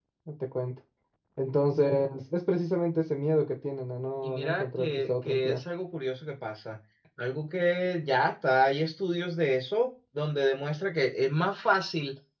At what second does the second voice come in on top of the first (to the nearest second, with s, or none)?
4 s